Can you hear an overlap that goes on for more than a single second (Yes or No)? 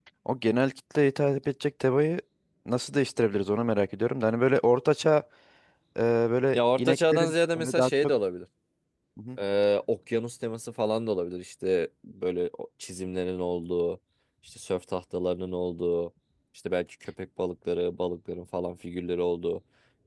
Yes